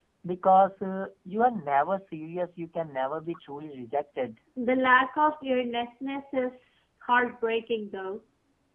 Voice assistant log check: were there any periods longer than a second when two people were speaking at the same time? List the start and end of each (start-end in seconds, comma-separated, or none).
none